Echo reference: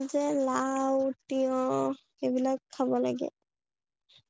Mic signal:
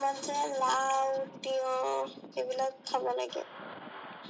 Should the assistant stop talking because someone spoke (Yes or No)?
No